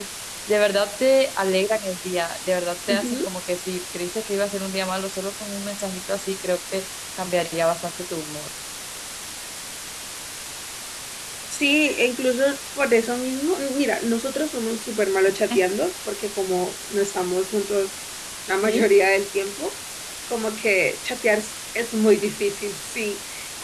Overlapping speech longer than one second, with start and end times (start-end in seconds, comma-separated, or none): none